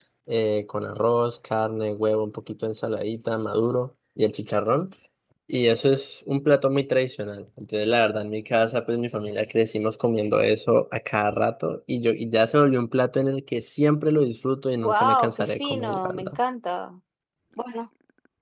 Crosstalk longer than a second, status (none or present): present